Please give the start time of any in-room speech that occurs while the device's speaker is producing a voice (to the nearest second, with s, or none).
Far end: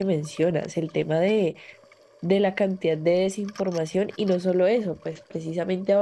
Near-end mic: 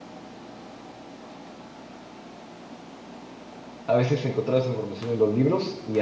4 s